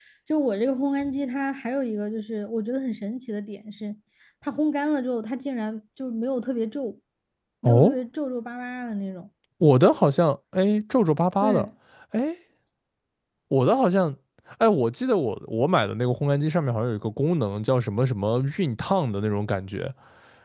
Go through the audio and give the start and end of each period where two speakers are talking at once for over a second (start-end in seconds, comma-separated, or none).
none